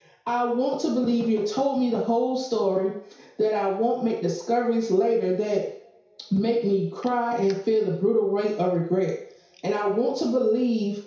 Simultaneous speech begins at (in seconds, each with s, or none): none